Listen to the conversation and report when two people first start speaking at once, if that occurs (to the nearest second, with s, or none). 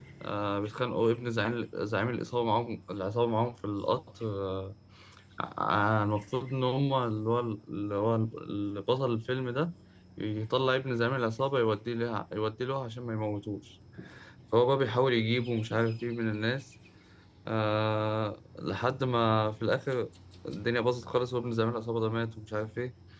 none